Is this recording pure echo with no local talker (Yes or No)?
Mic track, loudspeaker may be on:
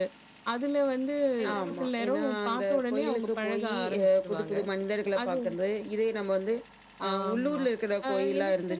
No